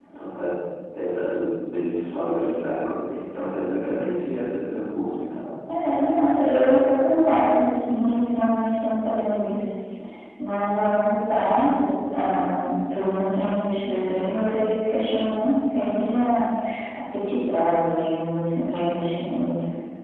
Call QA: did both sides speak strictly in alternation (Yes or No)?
Yes